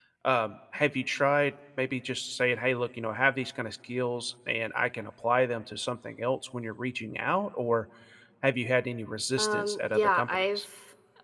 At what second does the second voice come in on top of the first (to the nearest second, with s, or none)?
9 s